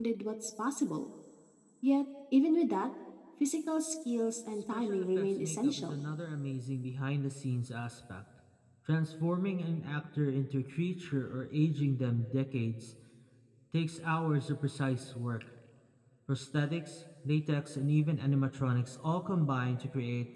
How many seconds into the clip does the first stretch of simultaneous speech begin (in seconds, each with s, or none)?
4.7 s